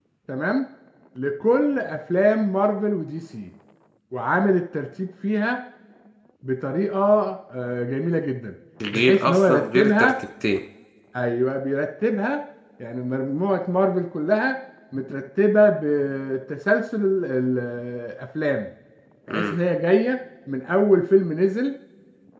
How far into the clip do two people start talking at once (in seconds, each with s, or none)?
8.8 s